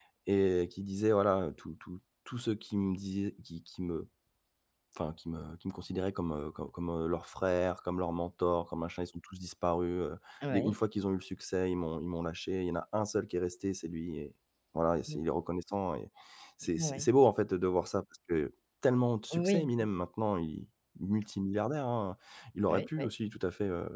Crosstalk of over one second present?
No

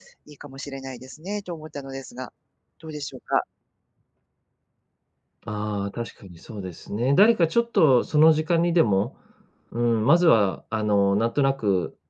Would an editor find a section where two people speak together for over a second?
No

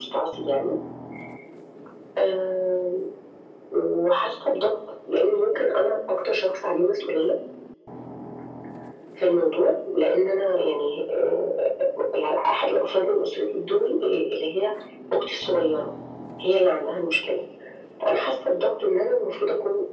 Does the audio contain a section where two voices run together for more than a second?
No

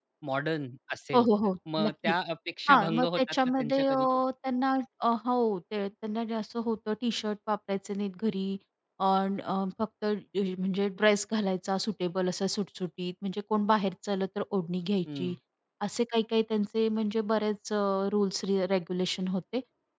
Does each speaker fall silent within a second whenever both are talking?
No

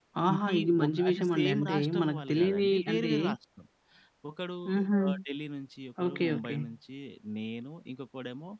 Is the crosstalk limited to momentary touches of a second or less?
No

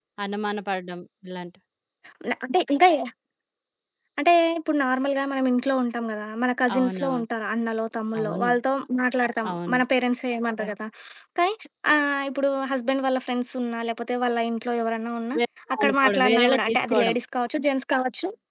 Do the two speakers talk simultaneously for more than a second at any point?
Yes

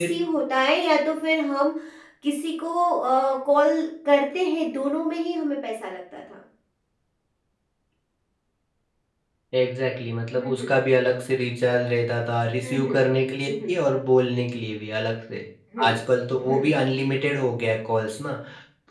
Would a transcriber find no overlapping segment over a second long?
Yes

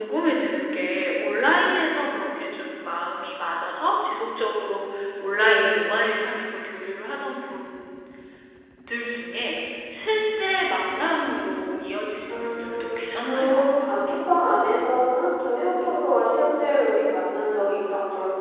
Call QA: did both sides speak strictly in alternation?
No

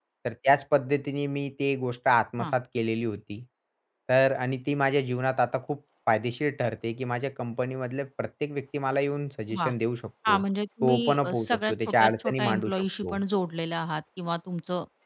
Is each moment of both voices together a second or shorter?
No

